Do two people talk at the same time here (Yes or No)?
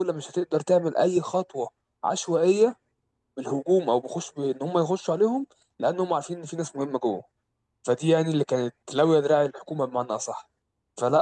No